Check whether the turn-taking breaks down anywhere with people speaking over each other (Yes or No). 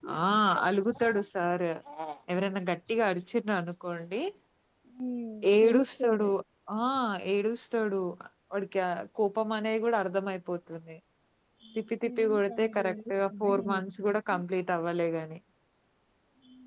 Yes